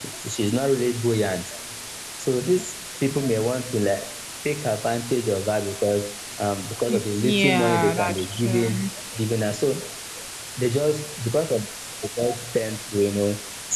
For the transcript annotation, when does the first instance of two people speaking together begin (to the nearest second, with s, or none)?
7 s